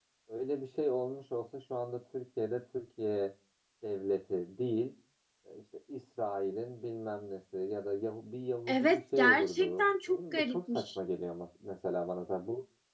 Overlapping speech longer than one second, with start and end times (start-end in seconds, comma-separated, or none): 8.7-11.0